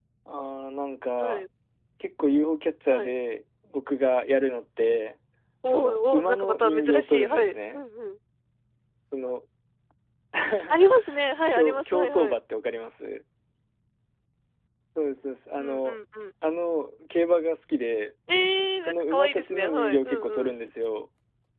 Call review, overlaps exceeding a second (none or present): present